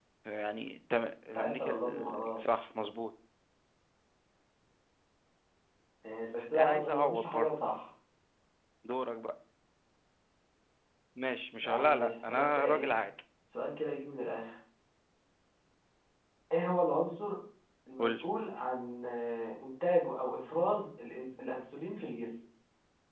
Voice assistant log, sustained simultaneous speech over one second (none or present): present